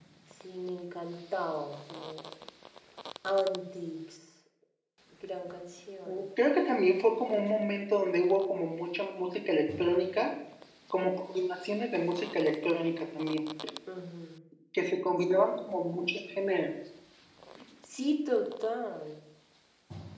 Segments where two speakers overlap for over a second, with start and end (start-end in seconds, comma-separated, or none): none